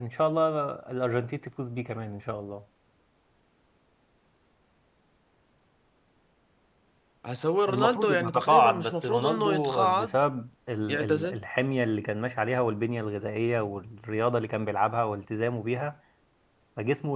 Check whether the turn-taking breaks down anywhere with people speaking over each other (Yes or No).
Yes